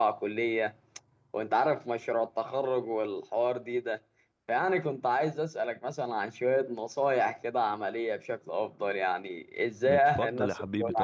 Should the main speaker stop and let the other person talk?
Yes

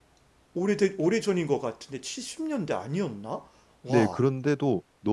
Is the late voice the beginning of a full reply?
Yes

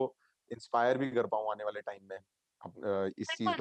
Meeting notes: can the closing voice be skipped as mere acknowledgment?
No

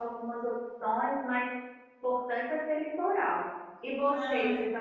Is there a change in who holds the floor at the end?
No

